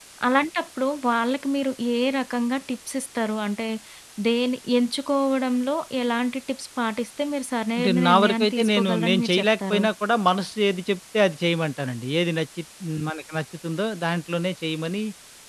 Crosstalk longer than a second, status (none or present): present